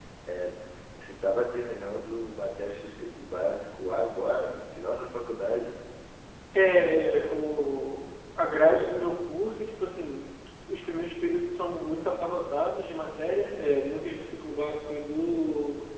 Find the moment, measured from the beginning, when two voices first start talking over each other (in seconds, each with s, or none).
none